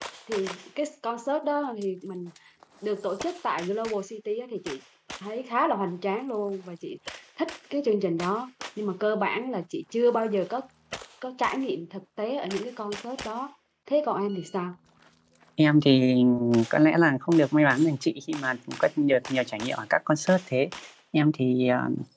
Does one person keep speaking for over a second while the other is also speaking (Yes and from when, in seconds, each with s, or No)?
No